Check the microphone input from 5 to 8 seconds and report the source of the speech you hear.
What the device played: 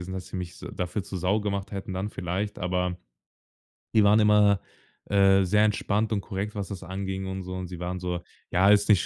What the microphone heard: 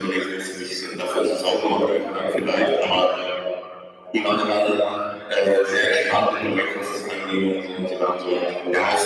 echo only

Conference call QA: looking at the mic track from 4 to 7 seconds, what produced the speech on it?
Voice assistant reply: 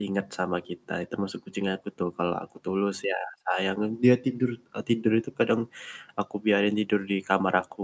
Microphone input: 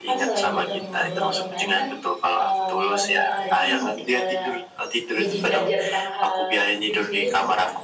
both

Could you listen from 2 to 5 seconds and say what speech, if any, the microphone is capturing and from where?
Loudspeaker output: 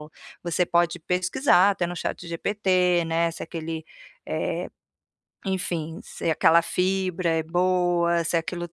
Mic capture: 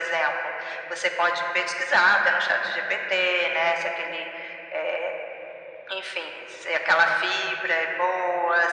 echo only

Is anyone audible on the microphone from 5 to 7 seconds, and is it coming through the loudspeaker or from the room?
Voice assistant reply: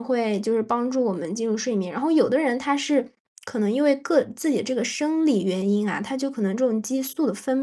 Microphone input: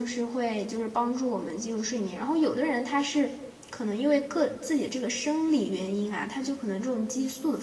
echo only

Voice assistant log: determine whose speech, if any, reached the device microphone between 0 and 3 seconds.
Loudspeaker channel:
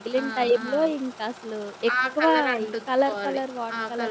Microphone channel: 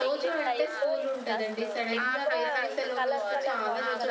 both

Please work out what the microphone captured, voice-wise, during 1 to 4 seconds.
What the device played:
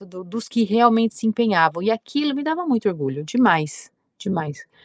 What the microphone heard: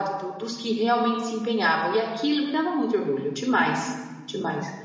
echo only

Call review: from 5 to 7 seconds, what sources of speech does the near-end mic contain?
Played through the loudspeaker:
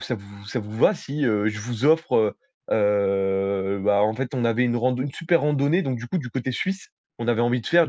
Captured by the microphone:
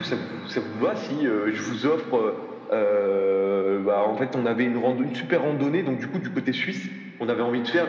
echo only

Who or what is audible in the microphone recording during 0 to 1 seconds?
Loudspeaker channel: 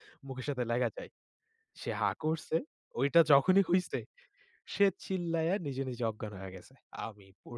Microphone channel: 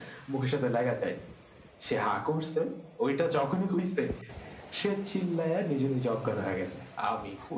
echo only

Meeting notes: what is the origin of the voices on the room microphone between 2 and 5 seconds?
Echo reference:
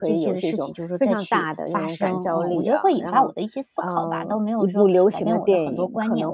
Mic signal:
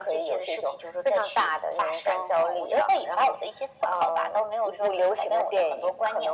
echo only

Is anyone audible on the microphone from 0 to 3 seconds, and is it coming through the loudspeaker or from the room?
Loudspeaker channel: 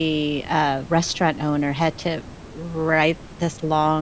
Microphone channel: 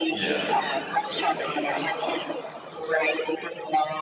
both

